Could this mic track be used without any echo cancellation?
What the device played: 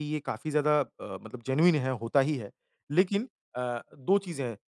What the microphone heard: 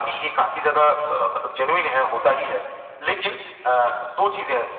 No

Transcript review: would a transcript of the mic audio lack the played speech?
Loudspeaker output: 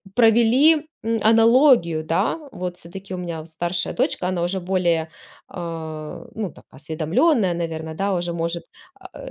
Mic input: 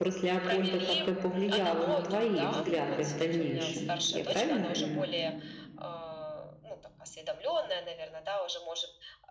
No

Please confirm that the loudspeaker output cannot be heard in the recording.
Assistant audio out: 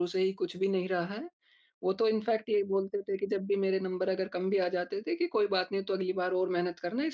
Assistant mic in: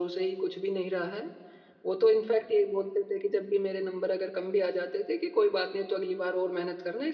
No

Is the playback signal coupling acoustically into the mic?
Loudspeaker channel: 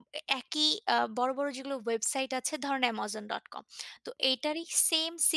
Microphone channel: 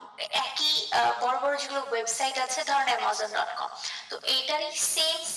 Yes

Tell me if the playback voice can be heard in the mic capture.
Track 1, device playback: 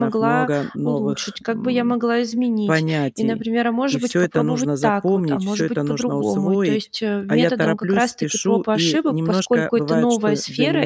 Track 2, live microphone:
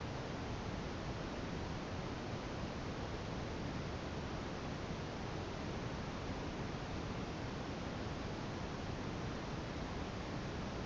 No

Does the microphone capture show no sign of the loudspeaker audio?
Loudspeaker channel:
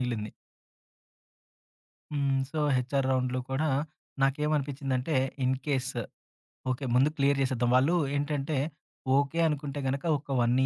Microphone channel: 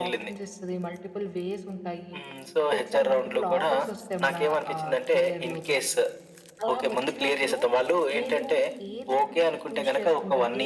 No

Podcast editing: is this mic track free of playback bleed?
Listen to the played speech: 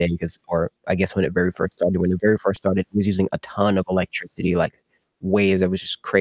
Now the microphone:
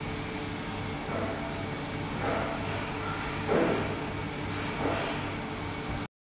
Yes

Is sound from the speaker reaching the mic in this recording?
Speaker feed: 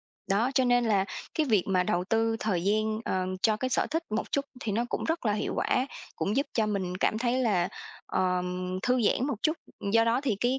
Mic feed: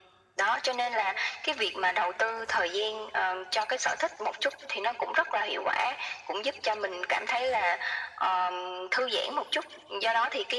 Yes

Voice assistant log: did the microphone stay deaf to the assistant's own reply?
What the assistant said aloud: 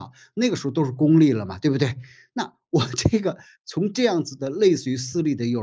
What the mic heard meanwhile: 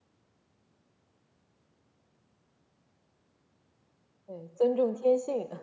Yes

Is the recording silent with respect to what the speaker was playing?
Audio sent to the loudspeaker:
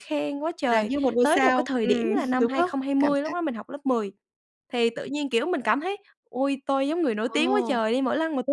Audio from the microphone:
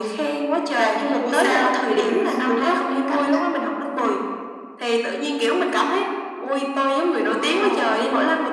No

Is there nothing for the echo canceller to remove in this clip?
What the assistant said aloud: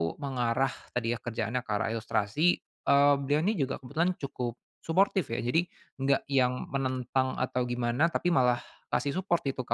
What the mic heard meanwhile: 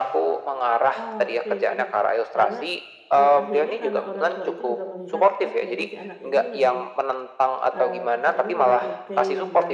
No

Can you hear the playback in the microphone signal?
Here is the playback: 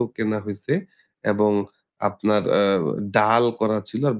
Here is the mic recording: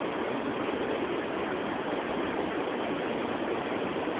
No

